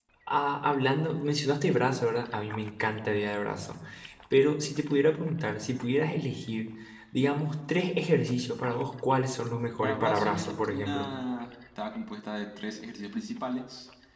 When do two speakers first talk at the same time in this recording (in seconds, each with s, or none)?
9.8 s